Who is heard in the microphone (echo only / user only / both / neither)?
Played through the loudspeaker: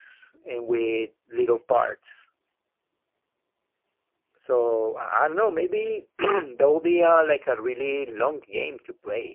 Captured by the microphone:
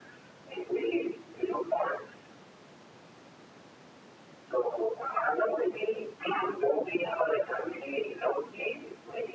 echo only